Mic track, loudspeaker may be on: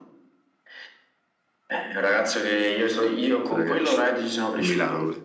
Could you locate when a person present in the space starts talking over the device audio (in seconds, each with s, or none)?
3.5 s